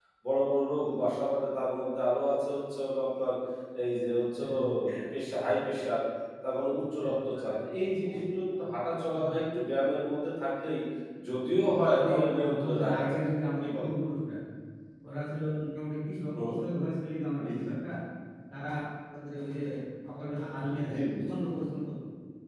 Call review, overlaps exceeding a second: present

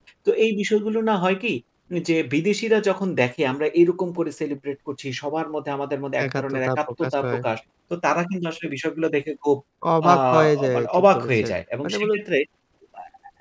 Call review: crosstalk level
present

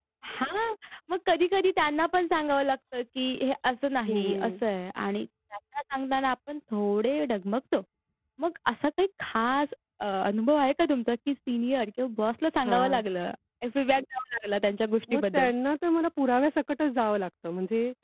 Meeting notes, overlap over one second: none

